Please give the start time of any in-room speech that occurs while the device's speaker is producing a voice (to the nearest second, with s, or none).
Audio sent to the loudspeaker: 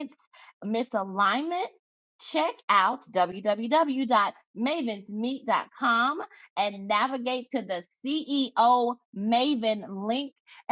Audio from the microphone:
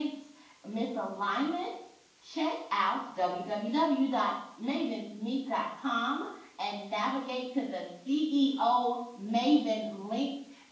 none